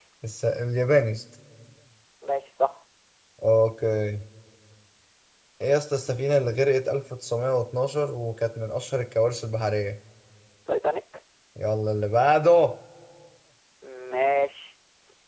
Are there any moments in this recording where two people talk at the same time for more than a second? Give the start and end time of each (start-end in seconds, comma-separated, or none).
none